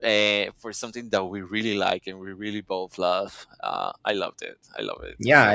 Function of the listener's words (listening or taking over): taking over